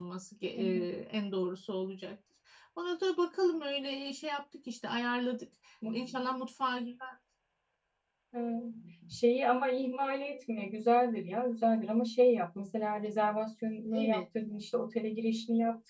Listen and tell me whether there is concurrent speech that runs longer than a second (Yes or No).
No